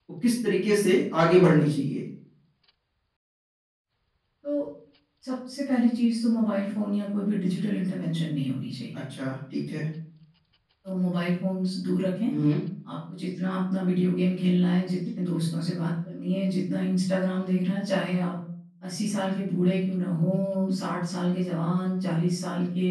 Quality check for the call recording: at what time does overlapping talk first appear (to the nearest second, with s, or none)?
none